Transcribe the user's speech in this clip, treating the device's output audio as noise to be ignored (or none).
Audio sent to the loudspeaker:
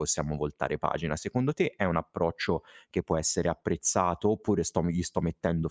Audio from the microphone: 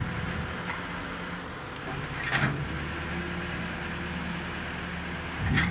none